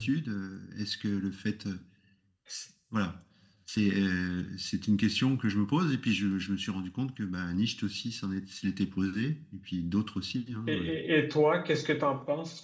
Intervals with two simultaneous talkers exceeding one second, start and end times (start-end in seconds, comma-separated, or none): none